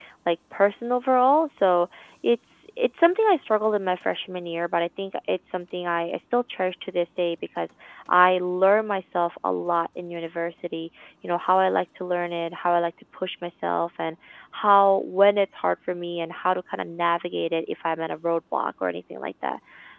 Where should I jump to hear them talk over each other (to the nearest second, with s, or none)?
none